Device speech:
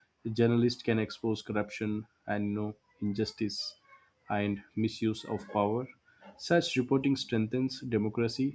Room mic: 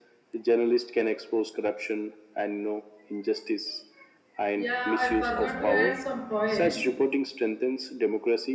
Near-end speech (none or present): present